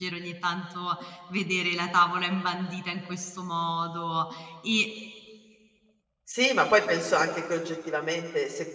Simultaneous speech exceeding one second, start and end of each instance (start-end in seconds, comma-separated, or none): none